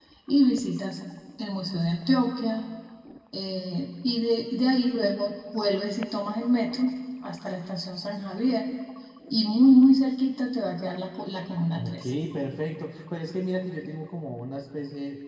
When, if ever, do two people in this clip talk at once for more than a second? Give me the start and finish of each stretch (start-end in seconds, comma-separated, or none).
none